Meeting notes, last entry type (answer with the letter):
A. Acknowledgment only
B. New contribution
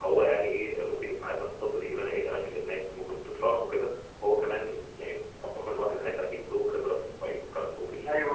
B